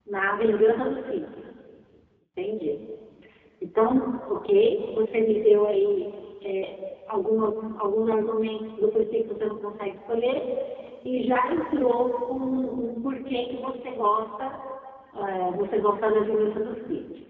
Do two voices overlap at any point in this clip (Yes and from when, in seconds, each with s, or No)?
No